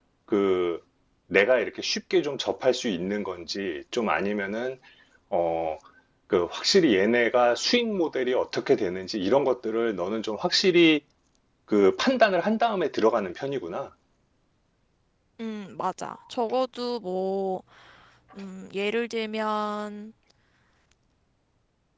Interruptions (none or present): none